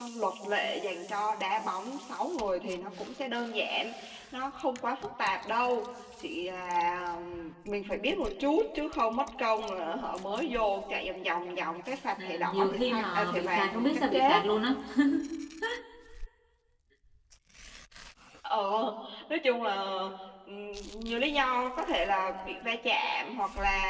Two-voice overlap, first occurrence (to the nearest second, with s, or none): 12 s